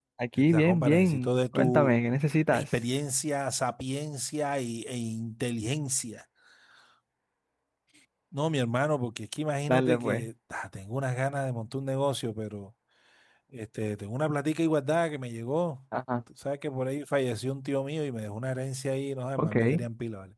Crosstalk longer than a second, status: present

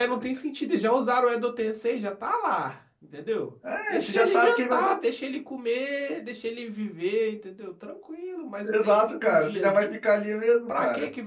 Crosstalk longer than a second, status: present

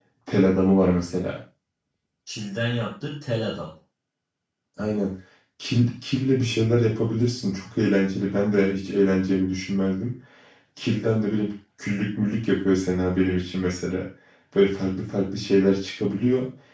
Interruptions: none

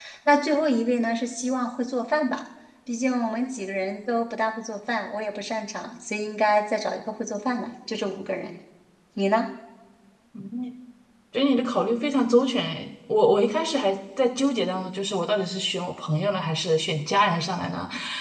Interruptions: none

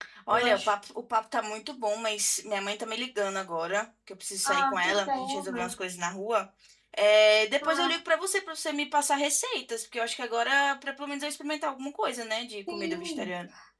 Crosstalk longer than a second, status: present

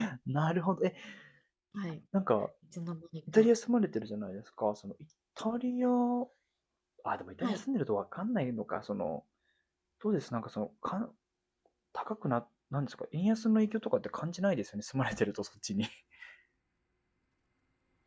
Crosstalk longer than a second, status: none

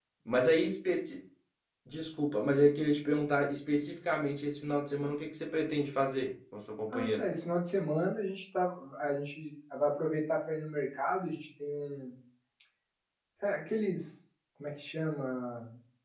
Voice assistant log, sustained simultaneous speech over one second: none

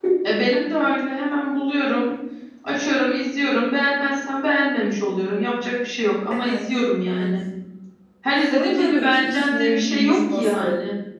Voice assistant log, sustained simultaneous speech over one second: present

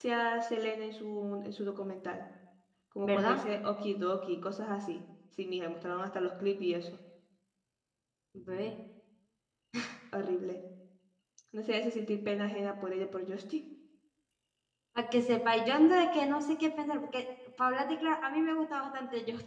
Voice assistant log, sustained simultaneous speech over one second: none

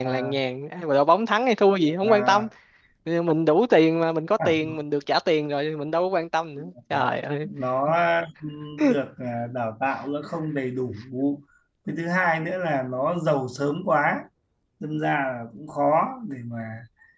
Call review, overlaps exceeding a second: none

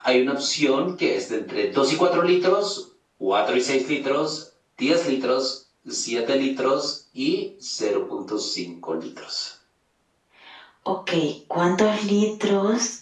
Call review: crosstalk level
none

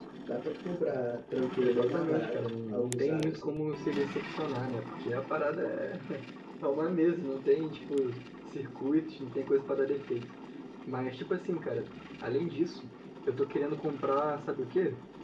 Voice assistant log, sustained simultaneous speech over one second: present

